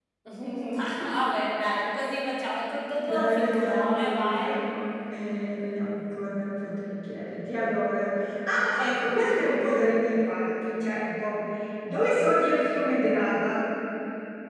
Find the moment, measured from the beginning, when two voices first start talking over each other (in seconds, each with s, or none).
3.0 s